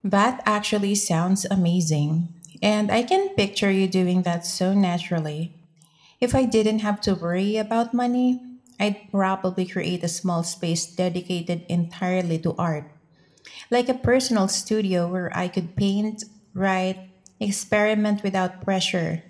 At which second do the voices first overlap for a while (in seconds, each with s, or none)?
none